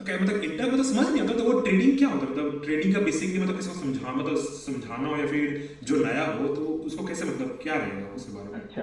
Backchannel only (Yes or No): No